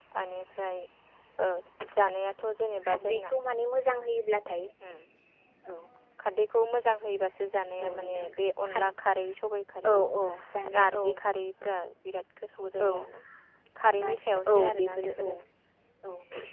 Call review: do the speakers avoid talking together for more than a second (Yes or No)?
No